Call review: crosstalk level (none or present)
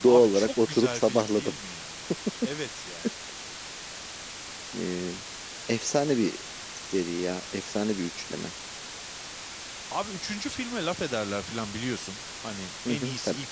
present